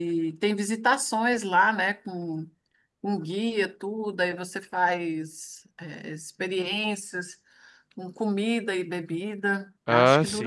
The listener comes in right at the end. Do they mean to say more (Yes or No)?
No